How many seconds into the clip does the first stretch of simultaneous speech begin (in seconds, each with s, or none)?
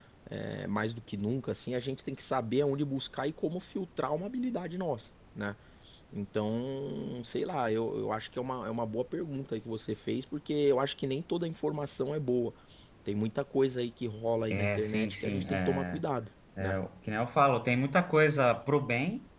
14.5 s